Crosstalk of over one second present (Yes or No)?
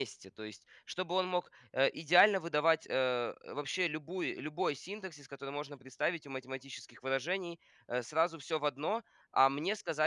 No